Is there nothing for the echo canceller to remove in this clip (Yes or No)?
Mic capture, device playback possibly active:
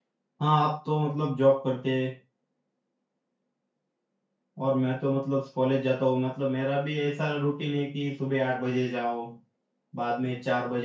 Yes